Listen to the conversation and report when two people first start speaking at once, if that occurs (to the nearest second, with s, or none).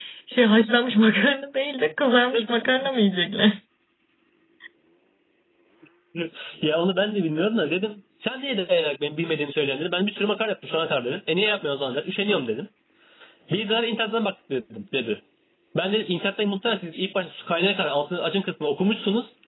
none